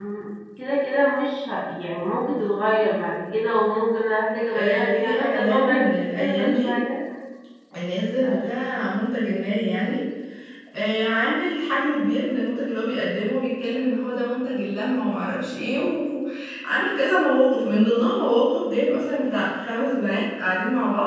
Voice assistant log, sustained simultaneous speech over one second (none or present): present